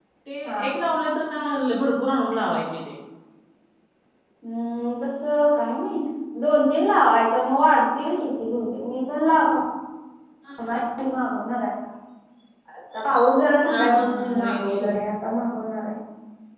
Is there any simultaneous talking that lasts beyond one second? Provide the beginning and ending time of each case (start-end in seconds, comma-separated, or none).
13.7-14.9